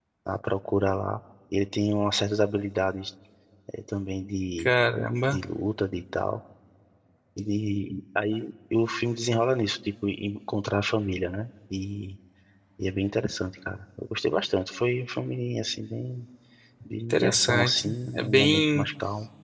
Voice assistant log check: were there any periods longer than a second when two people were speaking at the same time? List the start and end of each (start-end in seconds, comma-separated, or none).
17.1-18.9